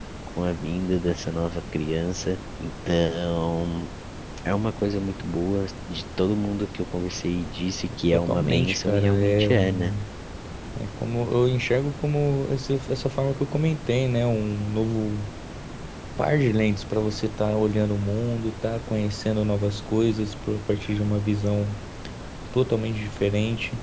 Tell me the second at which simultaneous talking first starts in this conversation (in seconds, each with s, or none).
8.1 s